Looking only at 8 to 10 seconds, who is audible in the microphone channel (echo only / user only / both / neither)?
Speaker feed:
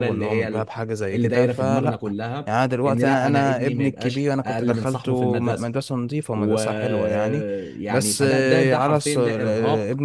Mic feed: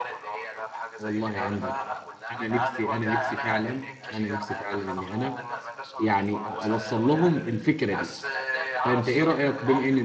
both